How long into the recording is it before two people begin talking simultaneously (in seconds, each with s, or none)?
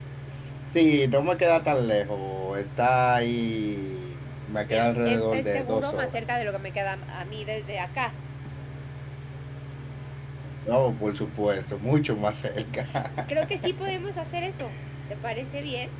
4.7 s